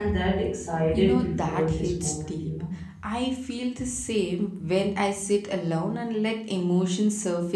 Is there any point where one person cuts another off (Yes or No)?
Yes